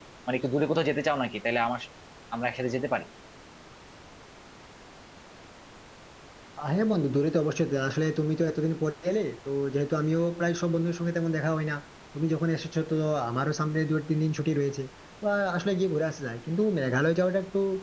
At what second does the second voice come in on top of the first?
none

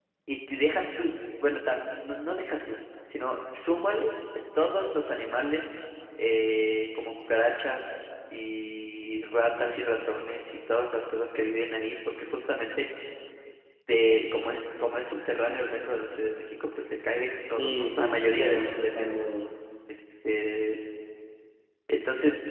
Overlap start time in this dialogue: 17.4 s

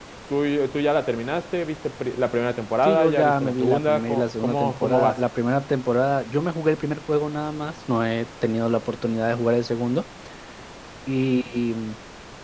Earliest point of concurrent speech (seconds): 2.8 s

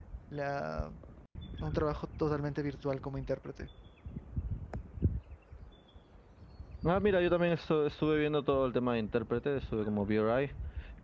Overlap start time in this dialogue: none

